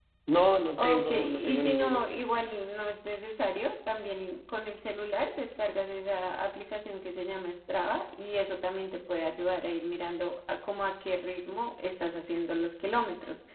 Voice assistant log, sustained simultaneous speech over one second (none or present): present